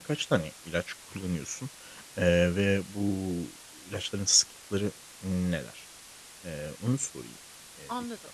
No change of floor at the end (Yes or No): No